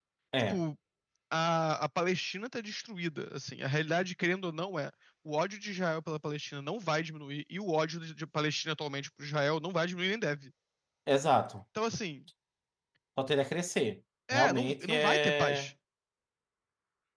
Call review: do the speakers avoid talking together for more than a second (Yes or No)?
No